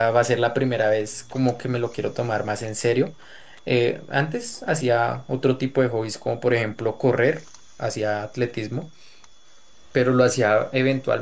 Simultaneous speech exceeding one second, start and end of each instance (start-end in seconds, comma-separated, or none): none